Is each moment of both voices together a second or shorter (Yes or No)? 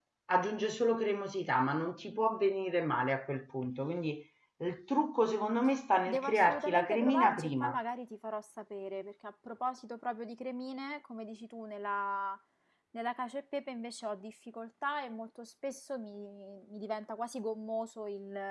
No